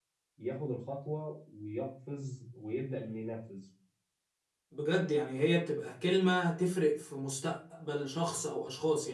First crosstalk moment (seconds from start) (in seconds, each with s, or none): none